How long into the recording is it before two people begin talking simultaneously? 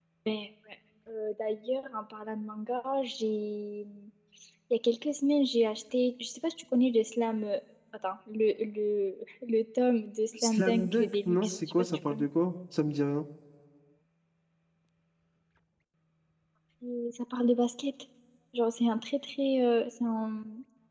10.3 s

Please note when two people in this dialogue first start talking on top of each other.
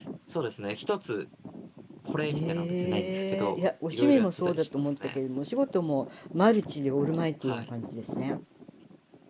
2.3 s

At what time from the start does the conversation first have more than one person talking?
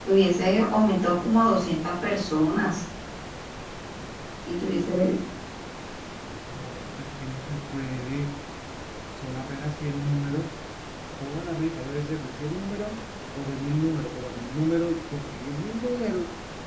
none

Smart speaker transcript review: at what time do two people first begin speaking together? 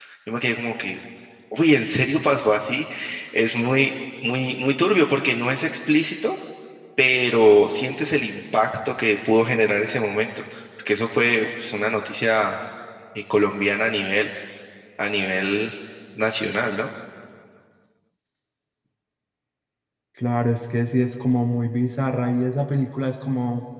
none

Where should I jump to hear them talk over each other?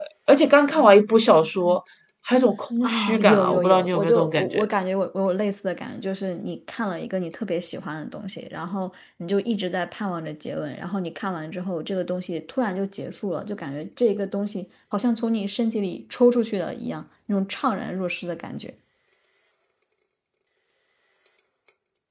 2.8 s

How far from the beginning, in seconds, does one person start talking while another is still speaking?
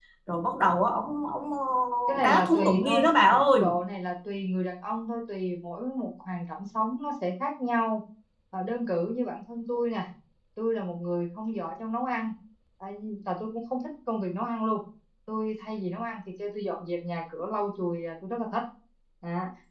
2.2 s

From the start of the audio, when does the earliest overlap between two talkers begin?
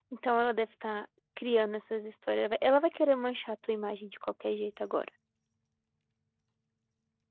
none

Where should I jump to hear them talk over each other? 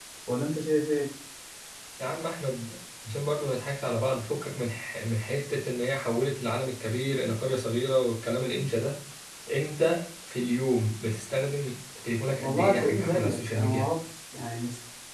12.4 s

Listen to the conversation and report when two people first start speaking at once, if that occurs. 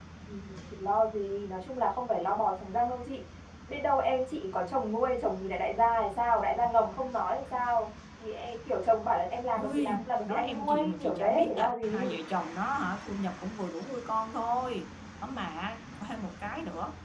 9.6 s

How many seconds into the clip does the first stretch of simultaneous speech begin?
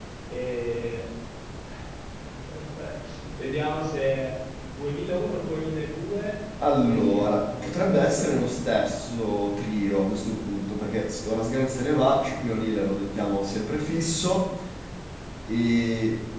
6.6 s

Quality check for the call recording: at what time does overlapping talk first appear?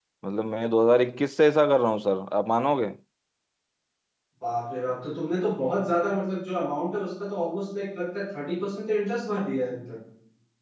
none

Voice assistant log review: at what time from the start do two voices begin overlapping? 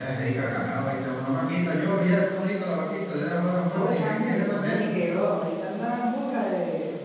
3.4 s

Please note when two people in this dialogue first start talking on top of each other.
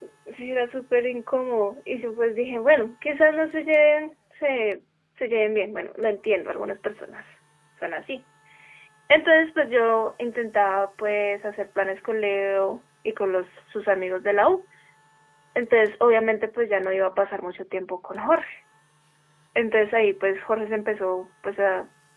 none

